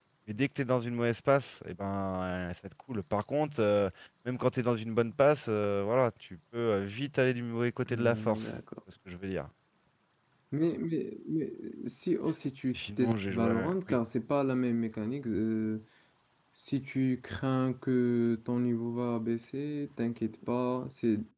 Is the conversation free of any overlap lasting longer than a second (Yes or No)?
No